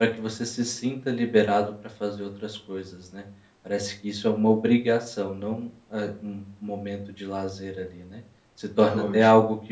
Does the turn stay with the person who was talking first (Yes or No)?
Yes